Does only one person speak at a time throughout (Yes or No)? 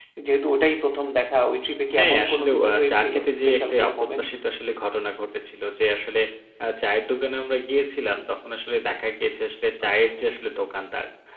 No